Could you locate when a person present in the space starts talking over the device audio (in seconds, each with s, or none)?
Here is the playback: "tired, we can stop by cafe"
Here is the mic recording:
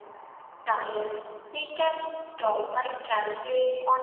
none